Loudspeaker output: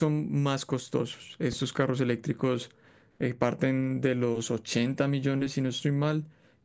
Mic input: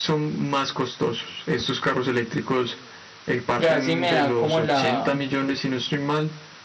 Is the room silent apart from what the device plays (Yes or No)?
No